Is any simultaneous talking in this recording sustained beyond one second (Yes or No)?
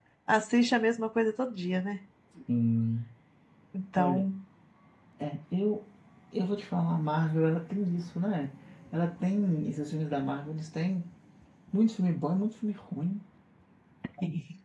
No